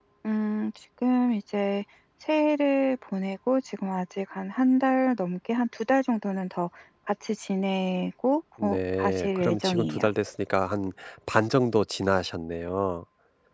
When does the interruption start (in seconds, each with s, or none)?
8.6 s